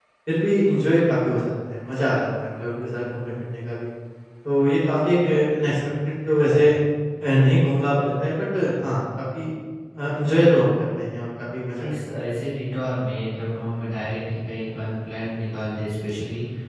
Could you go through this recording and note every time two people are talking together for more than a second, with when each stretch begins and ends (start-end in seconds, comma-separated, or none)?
none